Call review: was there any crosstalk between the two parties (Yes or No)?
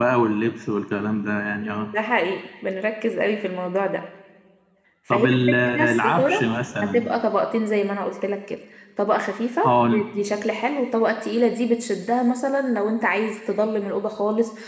Yes